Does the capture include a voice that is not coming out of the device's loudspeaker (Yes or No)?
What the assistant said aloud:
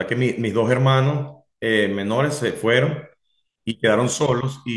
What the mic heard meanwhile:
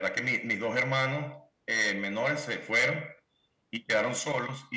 No